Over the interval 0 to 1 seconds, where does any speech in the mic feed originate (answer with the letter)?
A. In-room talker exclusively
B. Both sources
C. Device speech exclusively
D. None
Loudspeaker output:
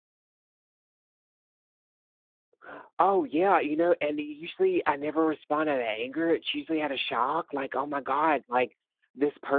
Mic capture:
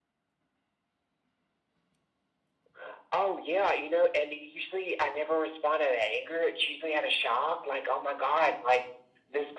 D